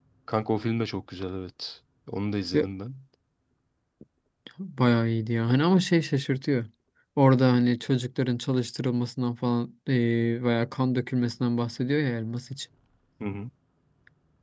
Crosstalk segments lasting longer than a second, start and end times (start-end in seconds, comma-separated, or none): none